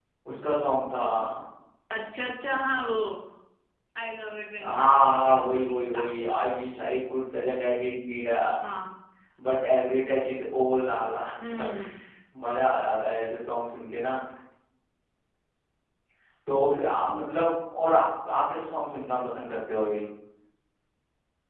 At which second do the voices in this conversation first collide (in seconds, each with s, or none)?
4.6 s